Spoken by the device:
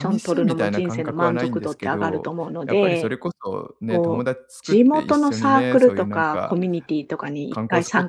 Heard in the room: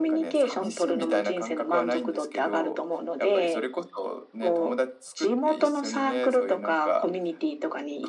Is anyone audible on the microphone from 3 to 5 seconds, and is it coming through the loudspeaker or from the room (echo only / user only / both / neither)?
echo only